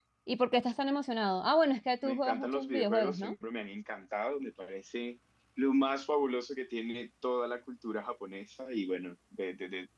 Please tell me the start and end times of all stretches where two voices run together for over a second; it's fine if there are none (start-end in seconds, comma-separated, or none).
2.0-3.4